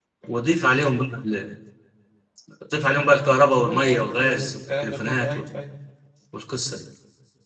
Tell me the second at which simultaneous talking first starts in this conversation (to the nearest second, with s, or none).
4 s